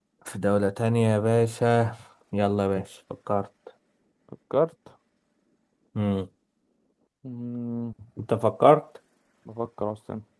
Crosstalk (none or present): none